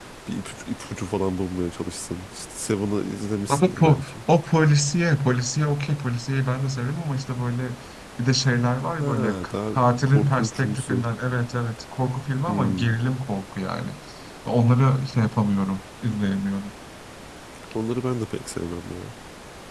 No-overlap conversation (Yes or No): No